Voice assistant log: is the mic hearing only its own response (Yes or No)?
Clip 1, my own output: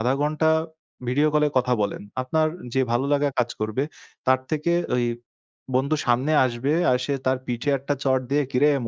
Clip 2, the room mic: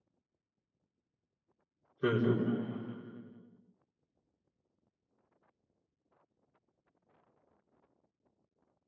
No